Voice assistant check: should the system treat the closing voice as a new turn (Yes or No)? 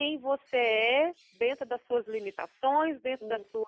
No